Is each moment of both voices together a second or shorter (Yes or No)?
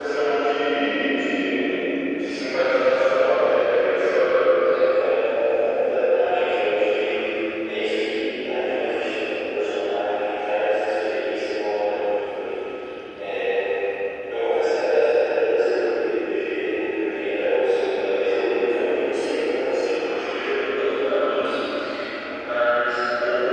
Yes